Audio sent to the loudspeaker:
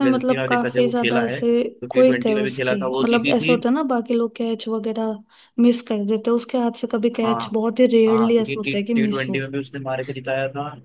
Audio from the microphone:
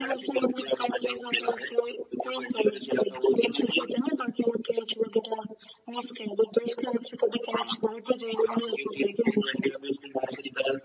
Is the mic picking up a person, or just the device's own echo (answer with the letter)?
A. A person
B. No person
B